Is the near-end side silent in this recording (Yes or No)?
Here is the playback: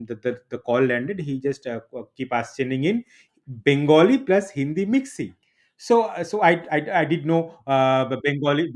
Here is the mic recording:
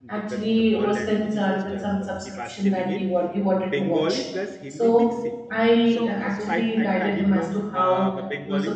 No